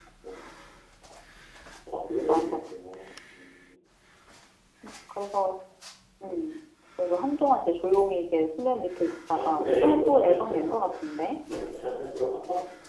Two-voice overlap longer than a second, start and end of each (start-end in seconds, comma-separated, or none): 9.3-10.7